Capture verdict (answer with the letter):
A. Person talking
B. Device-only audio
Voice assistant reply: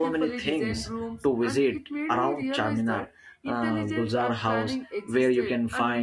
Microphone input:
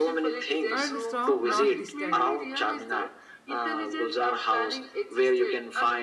A